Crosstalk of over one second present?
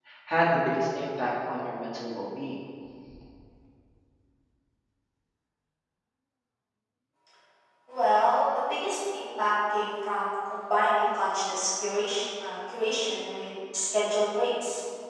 No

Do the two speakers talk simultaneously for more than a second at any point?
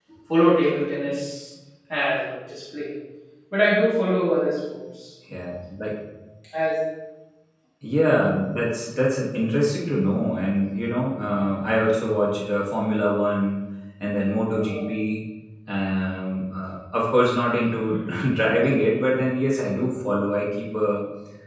No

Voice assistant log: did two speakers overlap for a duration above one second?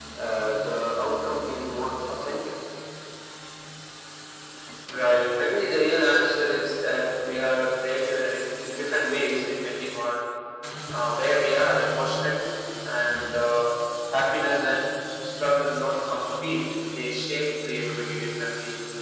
No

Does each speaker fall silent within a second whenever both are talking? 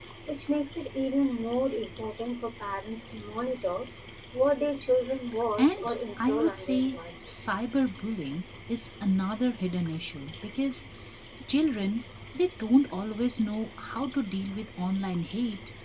No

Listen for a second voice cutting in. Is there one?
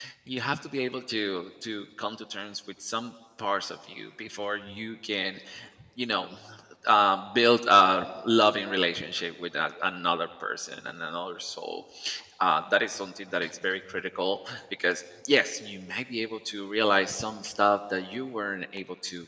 No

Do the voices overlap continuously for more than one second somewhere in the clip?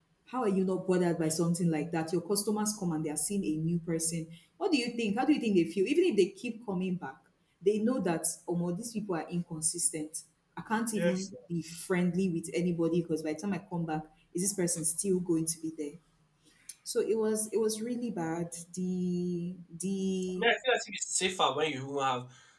No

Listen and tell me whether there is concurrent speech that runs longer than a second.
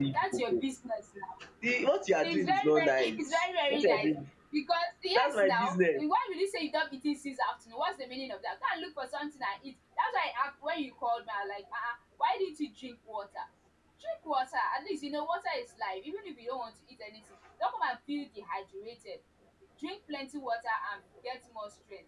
Yes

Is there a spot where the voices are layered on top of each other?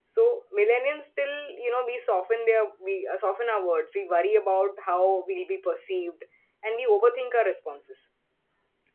No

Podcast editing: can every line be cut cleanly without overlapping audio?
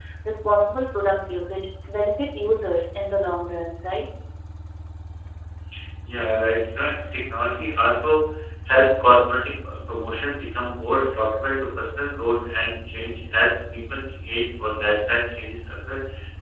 Yes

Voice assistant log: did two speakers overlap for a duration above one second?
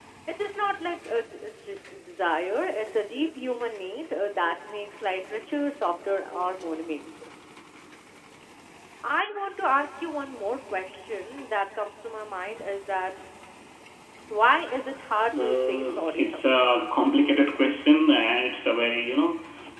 Yes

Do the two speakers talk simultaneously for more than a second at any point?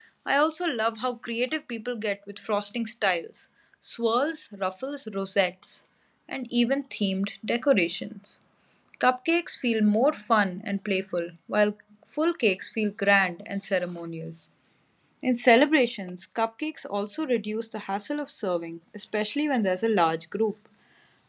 No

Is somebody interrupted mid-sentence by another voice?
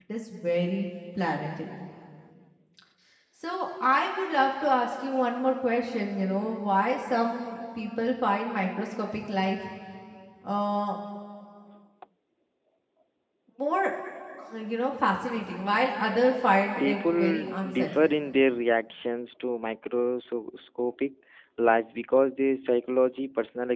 Yes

